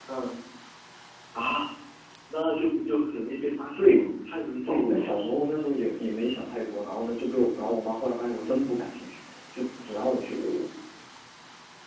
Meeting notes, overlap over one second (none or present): none